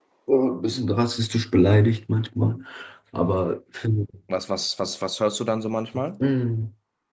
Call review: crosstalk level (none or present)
none